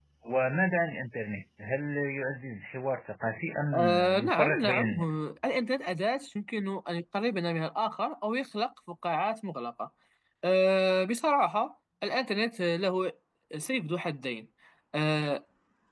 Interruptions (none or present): present